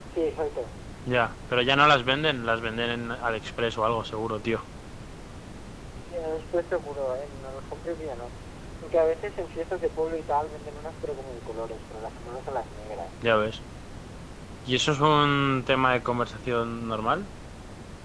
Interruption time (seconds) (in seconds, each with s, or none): none